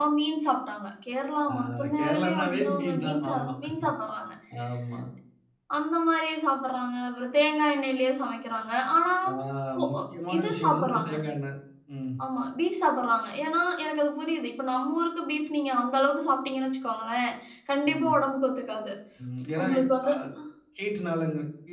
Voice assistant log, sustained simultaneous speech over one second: present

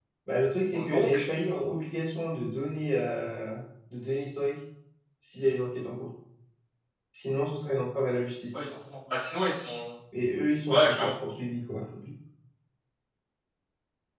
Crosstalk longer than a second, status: none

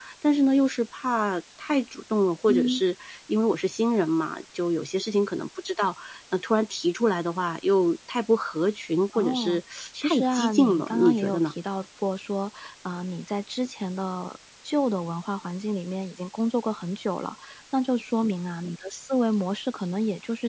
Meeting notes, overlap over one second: present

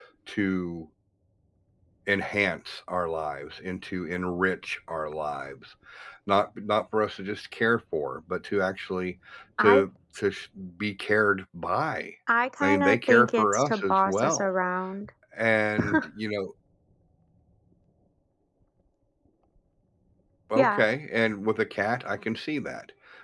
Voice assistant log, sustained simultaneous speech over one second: present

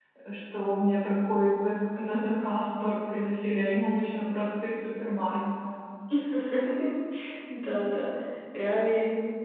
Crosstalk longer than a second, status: none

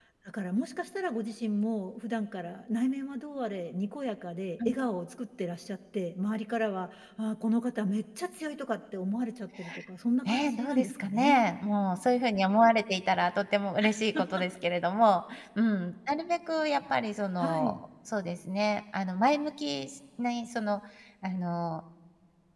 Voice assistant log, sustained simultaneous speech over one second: present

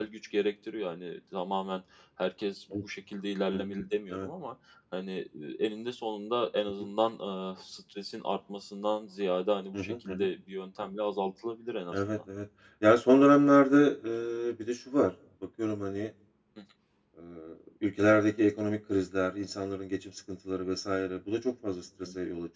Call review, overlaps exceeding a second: none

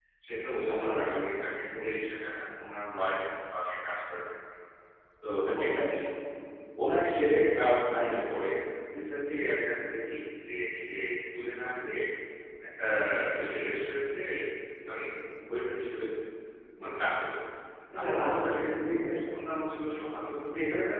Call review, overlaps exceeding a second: present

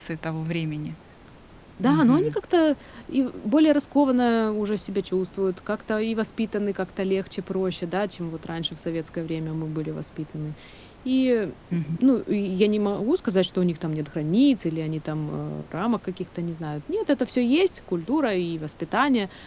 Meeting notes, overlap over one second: none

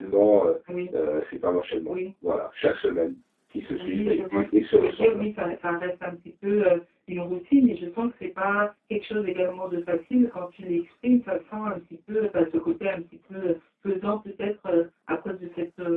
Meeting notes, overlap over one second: present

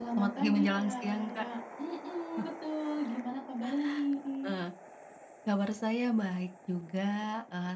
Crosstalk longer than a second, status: present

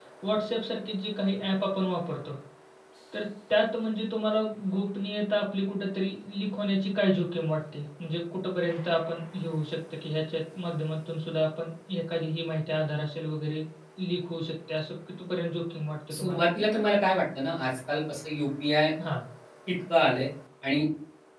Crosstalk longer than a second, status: none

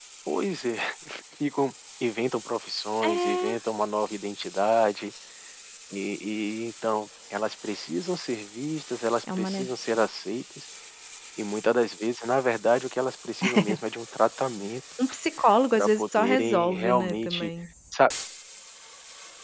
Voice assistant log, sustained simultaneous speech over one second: present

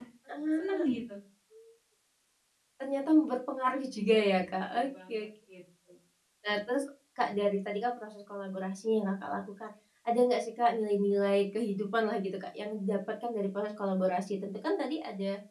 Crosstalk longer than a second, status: present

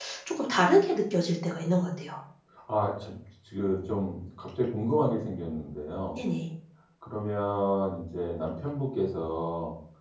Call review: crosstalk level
none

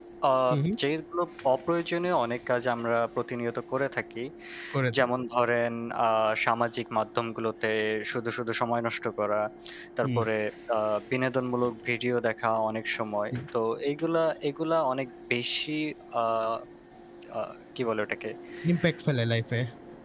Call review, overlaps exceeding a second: none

